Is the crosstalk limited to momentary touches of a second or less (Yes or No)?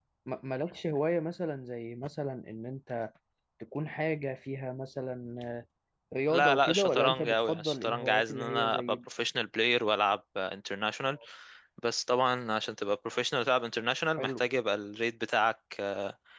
No